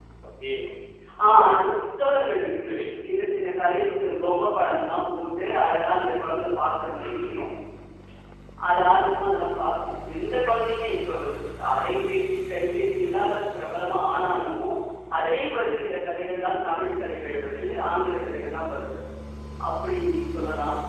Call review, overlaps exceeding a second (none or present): none